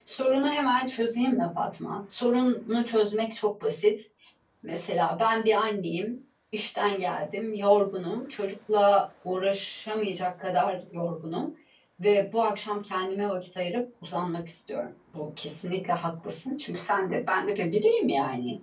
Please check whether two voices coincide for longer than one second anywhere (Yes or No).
No